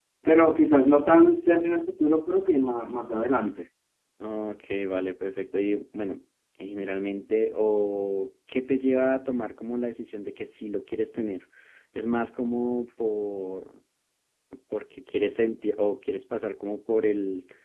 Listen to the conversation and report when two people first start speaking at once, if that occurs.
none

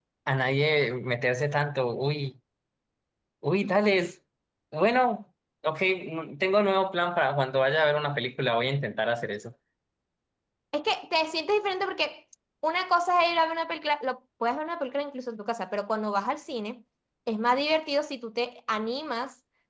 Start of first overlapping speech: none

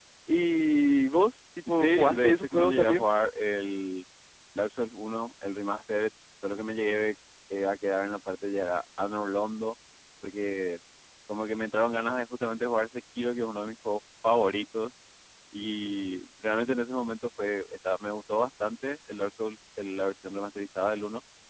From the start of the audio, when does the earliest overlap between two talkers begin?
2 s

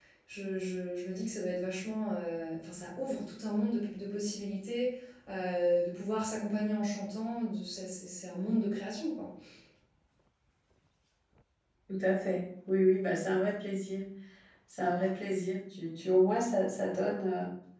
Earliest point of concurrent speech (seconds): none

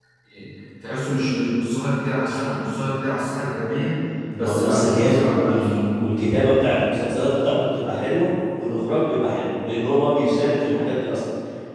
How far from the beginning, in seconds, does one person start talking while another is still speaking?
4 s

